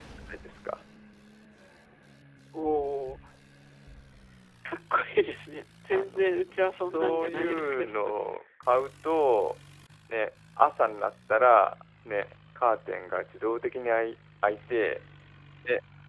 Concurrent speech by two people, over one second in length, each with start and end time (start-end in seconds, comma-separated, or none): 5.9-7.9